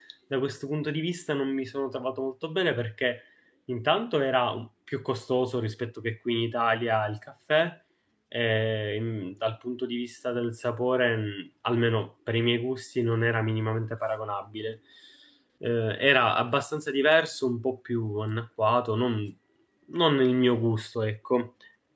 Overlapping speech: No

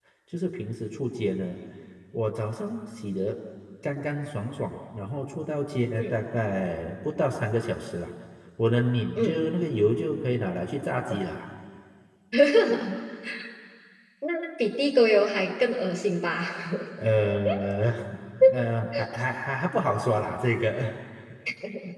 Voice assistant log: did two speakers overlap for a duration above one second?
No

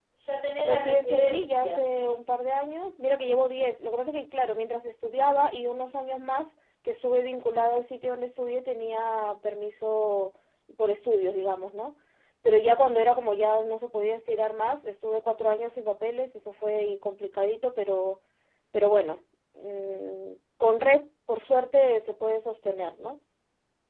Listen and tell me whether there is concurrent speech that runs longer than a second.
Yes, from 0.6 s

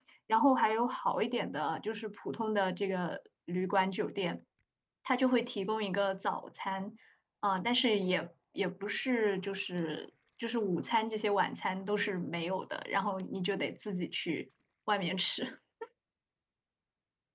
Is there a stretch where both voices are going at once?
No

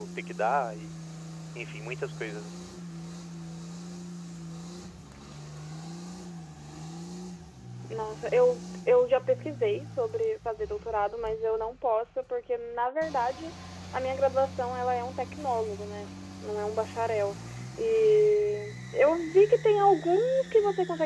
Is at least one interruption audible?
No

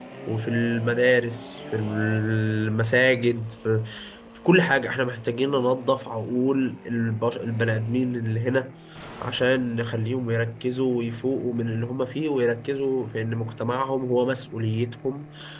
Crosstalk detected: No

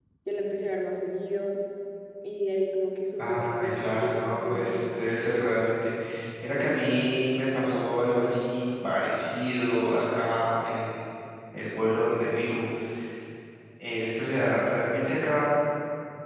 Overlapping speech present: Yes, from 3.2 s

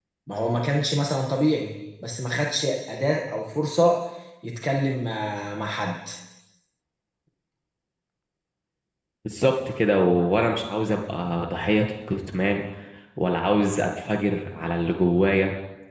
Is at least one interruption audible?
No

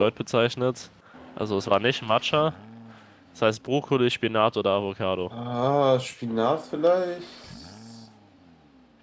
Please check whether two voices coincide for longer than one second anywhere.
No

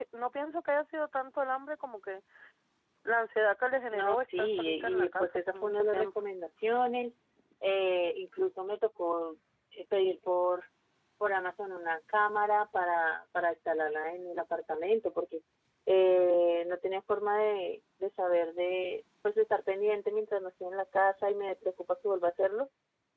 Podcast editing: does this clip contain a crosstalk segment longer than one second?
Yes, from 3.9 s

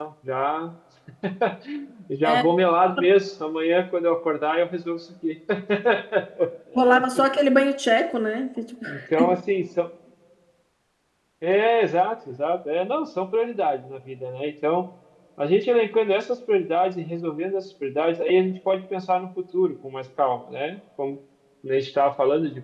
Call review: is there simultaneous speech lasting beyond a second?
No

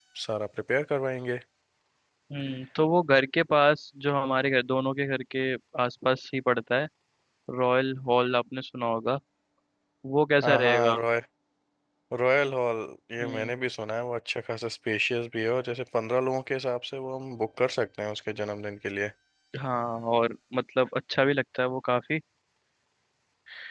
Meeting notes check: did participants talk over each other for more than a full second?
No

